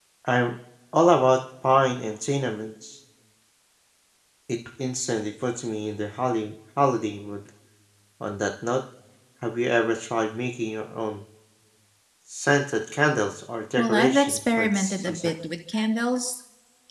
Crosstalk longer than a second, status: present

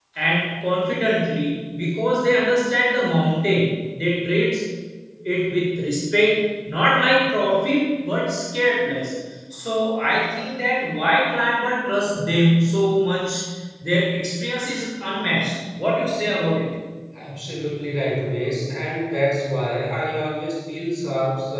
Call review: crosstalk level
none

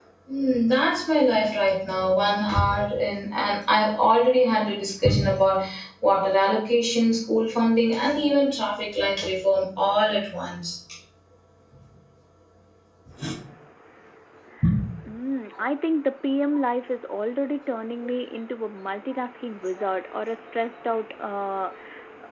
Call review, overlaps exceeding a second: none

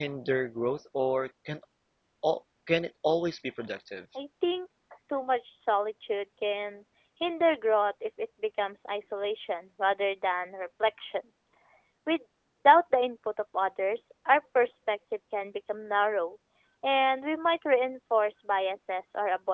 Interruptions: none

